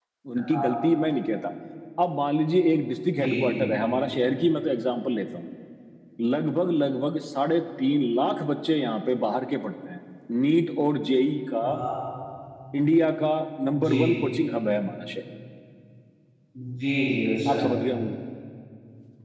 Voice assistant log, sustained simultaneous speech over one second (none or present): none